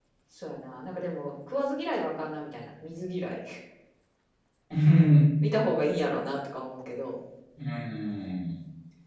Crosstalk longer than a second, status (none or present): none